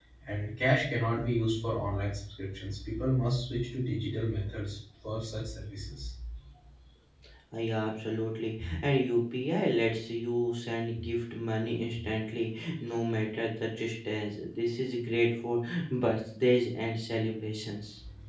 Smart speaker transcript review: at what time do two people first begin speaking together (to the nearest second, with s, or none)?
none